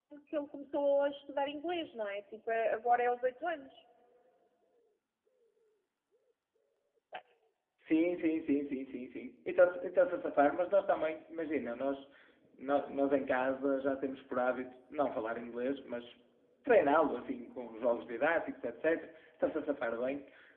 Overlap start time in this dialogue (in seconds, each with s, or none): none